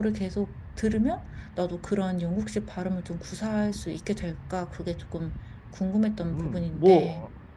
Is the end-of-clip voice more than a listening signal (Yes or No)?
Yes